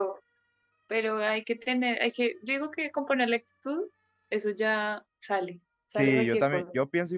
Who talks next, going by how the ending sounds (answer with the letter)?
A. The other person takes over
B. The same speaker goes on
A